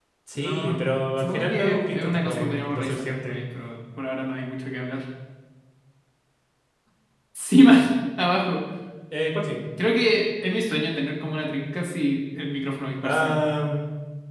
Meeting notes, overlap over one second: present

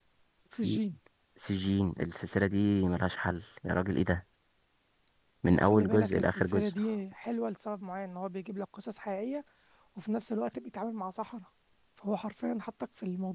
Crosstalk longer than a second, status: present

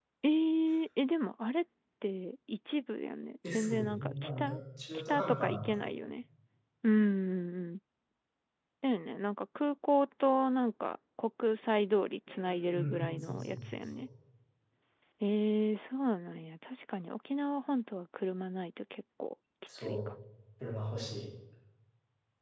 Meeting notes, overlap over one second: present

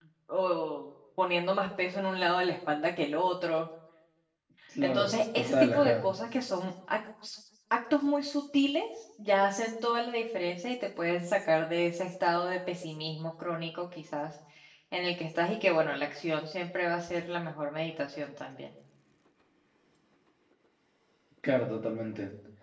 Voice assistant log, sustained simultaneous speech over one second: present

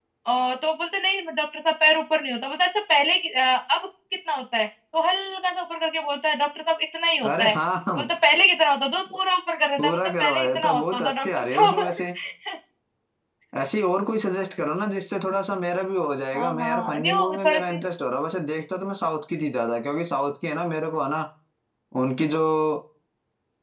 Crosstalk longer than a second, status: present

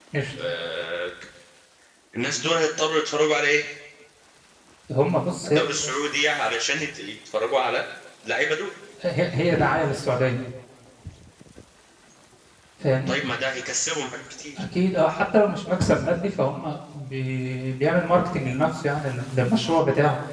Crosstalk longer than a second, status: none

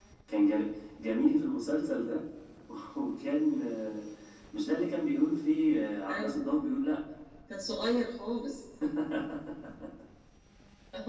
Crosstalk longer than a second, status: none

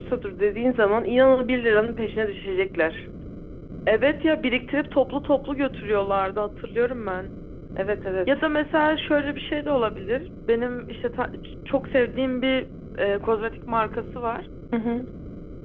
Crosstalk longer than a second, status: none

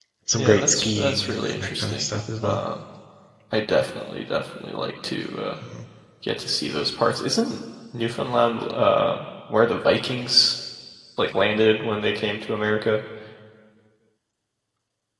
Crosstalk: present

